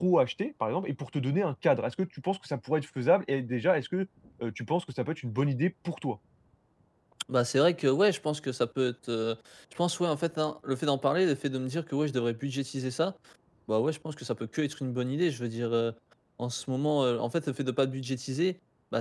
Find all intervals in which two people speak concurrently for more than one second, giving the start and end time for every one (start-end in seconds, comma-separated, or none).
none